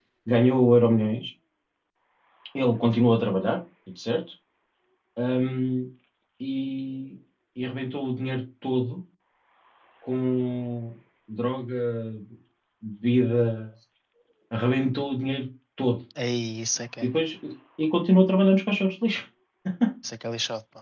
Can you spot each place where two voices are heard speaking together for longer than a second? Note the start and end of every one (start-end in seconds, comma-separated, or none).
none